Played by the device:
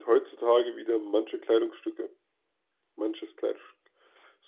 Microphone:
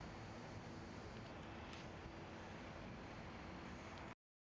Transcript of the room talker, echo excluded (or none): none